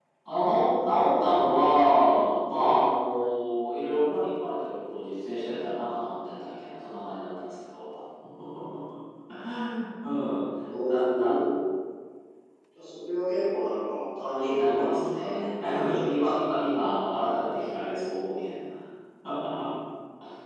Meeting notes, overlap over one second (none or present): present